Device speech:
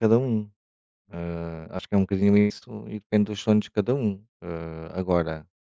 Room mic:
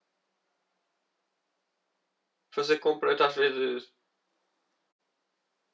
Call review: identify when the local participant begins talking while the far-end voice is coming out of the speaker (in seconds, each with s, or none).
2.5 s